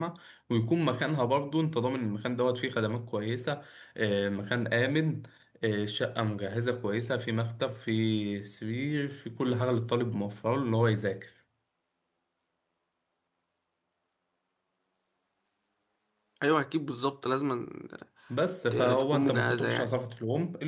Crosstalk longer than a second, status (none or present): present